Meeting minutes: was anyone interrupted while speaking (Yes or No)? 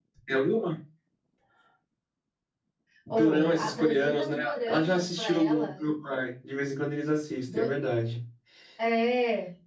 Yes